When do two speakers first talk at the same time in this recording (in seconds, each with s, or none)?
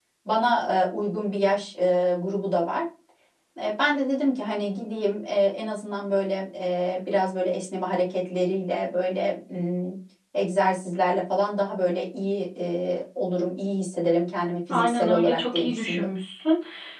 14.7 s